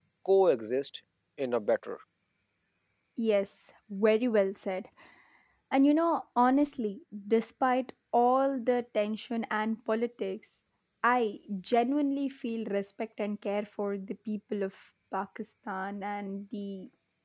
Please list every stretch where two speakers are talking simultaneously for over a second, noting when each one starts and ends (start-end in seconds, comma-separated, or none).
none